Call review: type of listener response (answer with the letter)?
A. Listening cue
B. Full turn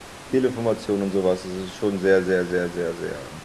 B